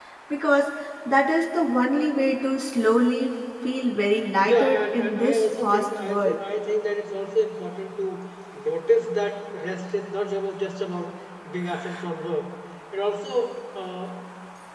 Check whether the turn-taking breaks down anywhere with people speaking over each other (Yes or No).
Yes